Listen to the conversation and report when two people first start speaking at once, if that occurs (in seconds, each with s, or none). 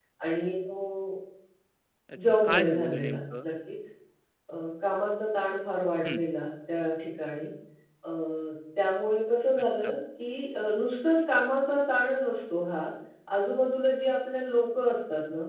2.2 s